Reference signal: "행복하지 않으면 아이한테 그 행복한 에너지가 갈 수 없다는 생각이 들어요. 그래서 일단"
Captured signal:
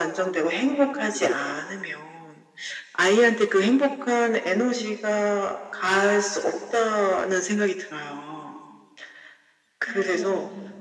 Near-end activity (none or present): present